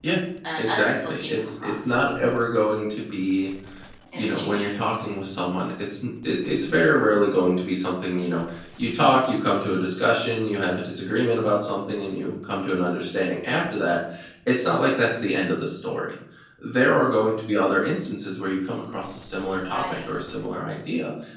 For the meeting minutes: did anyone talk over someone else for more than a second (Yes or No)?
Yes